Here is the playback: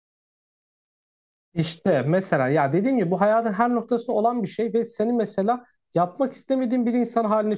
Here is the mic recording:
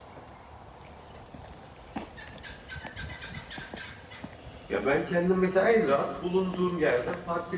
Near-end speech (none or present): present